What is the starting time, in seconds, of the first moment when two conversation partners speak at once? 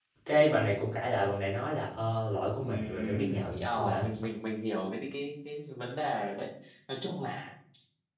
3 s

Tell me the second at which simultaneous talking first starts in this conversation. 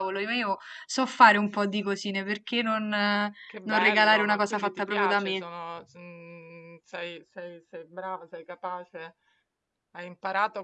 3 s

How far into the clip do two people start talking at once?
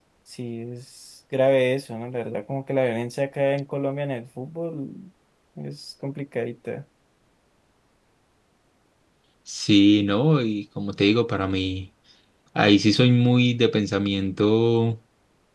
none

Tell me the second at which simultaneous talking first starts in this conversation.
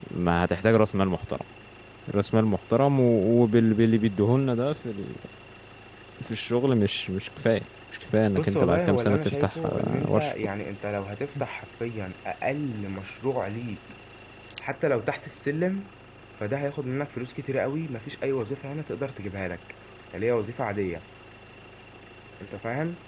8 s

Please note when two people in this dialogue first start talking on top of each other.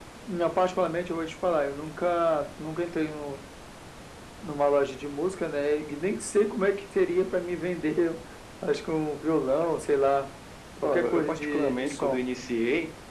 11 s

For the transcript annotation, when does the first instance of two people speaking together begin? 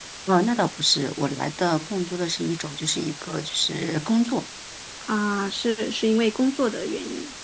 none

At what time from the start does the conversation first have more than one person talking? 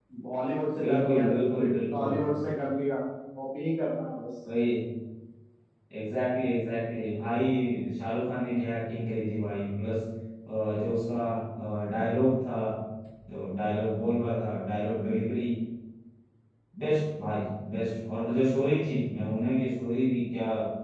1 s

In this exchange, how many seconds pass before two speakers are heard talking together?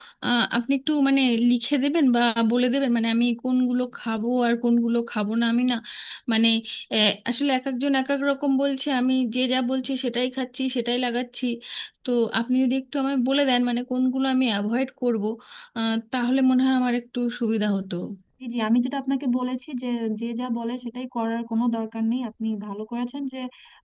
none

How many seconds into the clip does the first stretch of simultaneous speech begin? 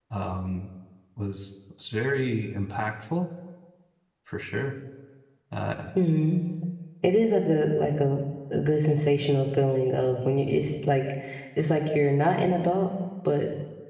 none

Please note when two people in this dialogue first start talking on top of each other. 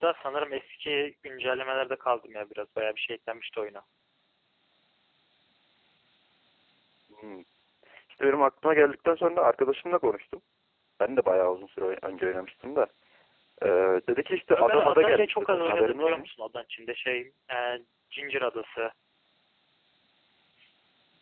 15 s

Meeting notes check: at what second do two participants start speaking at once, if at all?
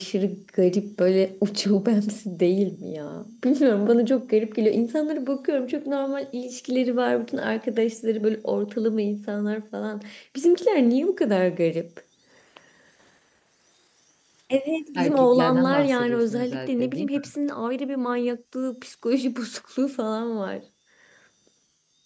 15 s

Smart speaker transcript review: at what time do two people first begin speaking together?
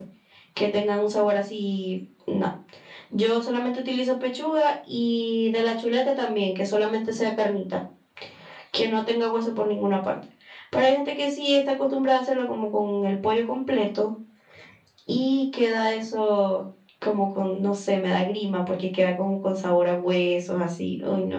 none

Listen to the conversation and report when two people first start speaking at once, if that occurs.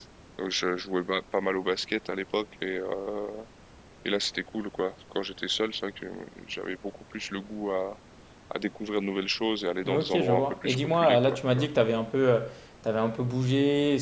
10 s

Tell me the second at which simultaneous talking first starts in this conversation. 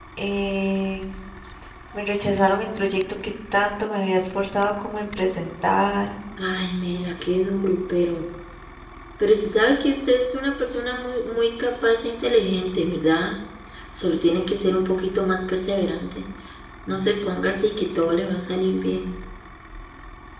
none

